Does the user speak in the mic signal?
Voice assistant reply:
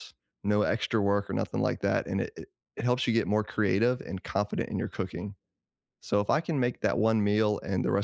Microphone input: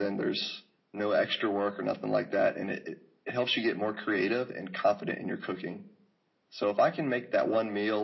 No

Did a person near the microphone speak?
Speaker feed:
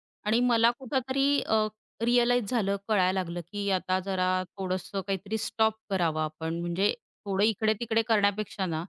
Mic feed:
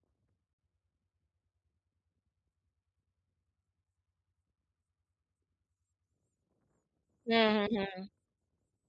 Yes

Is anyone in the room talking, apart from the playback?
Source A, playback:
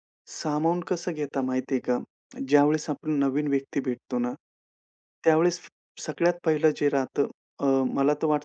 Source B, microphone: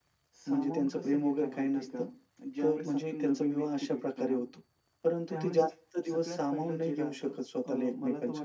Yes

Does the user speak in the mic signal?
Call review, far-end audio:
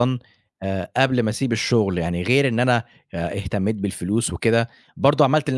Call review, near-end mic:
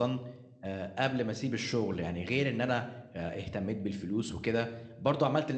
No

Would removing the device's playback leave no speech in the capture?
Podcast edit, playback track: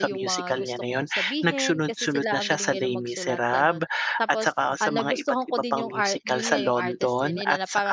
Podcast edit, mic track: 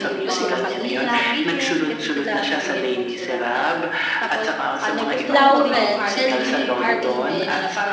No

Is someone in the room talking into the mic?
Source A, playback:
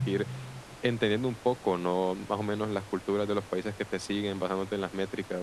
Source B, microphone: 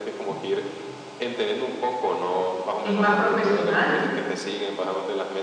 Yes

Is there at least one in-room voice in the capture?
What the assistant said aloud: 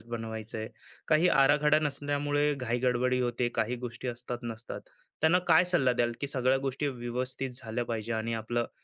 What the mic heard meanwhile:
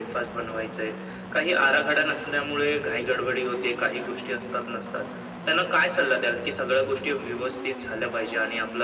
No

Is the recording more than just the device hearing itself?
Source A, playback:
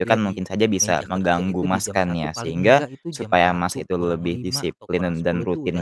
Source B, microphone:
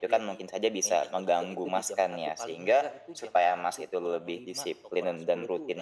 No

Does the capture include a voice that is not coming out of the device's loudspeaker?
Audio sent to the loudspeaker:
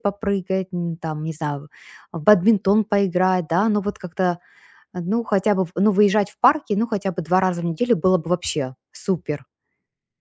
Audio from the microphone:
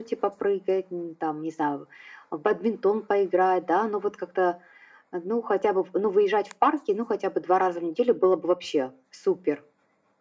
No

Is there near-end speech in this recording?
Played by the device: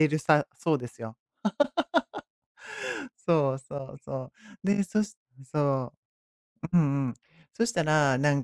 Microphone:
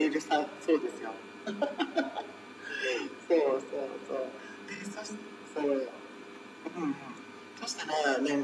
No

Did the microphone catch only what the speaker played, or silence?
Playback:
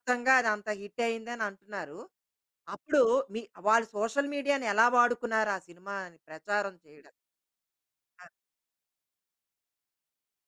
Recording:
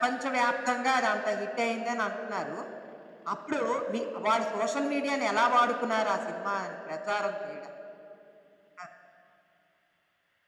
Yes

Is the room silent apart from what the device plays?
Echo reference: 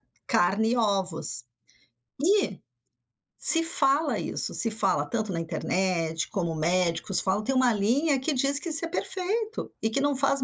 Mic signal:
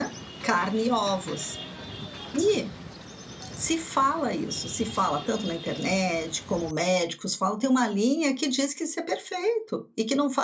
Yes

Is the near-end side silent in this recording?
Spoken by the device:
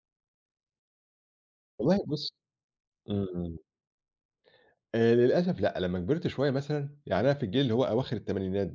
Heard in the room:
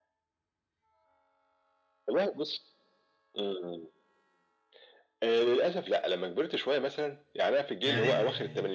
No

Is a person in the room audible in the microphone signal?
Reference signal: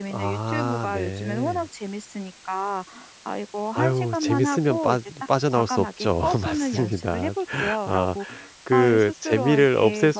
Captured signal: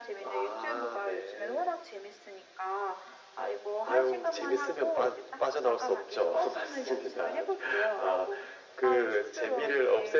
No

